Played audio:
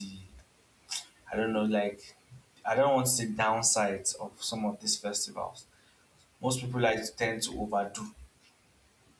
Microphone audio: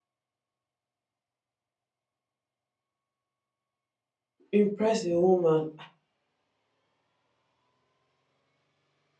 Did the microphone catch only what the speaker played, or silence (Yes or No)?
No